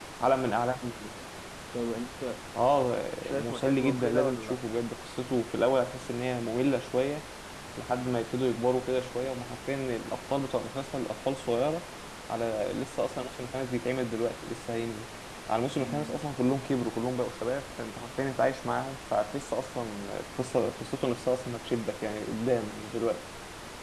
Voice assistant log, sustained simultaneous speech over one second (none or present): present